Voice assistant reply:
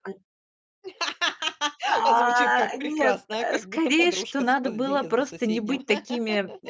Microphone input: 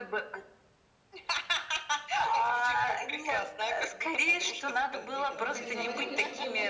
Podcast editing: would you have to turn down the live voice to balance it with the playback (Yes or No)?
No